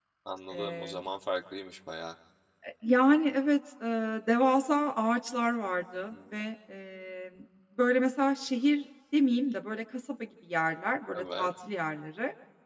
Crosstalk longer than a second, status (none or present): none